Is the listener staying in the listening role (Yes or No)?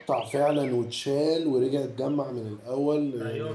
No